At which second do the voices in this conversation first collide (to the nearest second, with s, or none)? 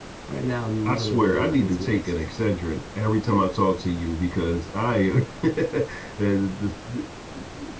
1 s